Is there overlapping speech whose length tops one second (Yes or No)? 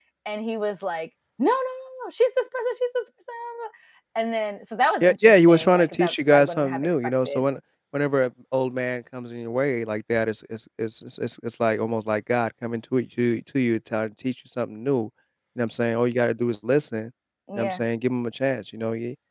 Yes